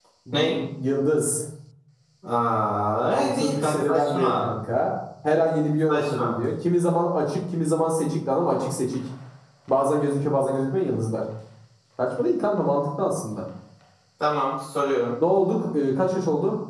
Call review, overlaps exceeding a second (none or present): present